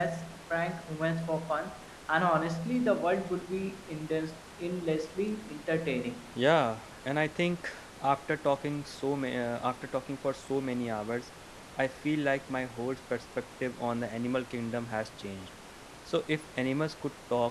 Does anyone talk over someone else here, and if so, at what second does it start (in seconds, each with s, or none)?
none